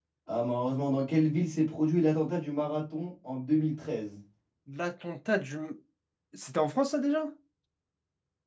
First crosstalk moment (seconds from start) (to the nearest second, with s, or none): none